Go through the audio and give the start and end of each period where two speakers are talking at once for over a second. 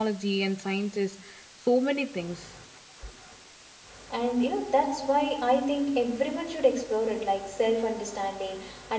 none

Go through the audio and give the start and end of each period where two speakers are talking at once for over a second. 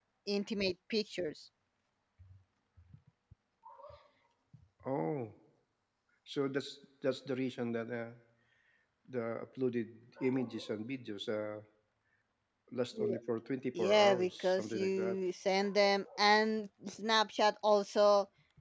13.9-15.2

